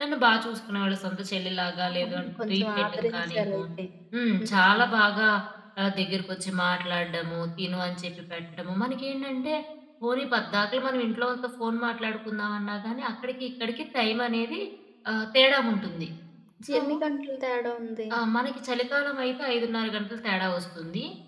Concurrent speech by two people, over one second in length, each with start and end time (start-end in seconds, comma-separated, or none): 1.9-3.6